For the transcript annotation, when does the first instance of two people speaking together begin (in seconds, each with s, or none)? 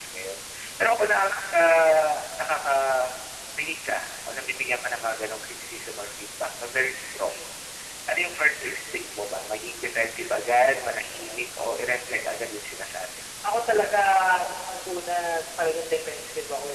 none